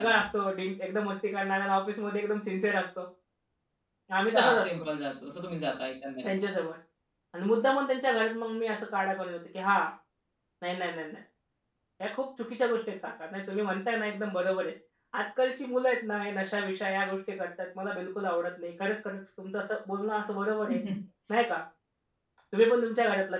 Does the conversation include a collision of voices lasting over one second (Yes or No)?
No